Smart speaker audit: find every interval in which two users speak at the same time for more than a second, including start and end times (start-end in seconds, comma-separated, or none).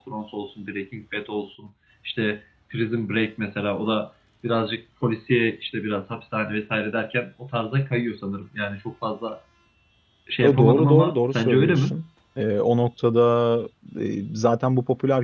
10.4-11.9